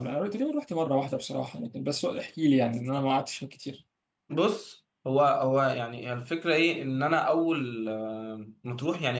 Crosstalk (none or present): none